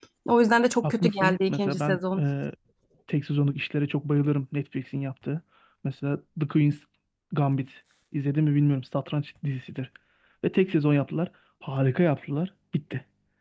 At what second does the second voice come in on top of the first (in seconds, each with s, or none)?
0.8 s